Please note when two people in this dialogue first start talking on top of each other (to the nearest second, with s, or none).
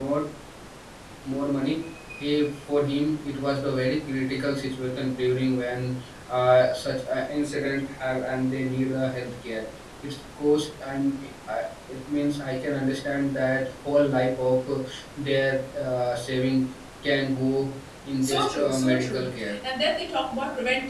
18 s